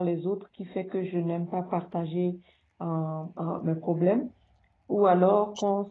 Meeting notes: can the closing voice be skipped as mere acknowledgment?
Yes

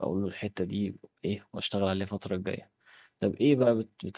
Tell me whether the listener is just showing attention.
Yes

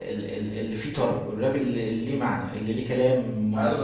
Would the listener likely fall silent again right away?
No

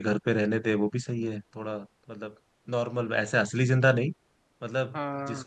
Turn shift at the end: No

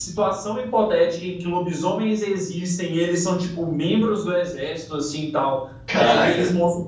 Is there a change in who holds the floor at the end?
No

